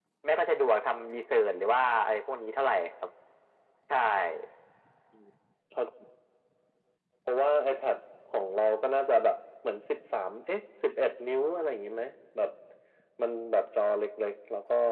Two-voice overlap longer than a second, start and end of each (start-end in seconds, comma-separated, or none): none